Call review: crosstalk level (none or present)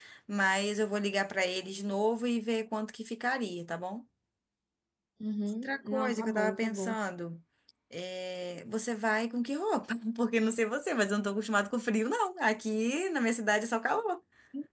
present